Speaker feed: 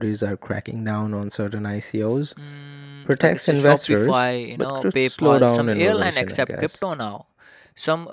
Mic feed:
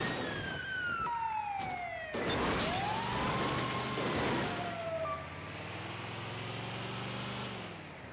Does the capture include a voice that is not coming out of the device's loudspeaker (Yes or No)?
No